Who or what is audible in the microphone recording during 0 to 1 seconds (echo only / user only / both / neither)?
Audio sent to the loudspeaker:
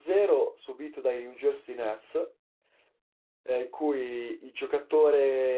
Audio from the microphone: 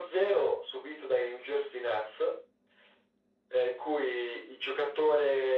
echo only